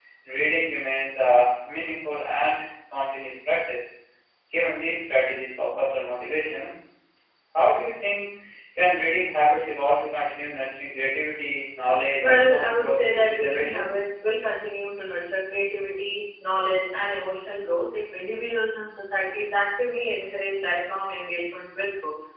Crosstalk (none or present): present